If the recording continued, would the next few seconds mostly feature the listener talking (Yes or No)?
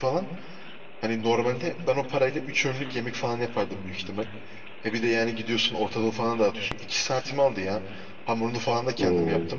No